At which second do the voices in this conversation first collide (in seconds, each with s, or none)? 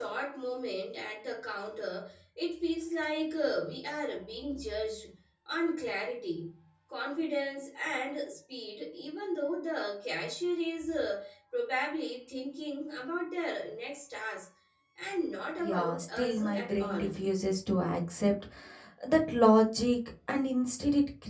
15.6 s